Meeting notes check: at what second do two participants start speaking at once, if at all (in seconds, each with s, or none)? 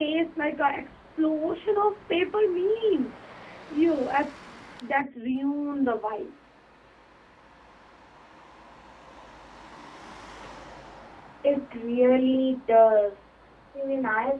none